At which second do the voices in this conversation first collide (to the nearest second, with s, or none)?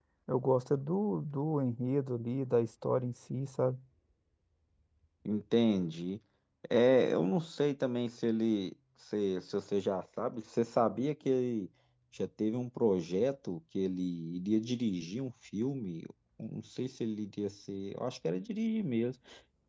none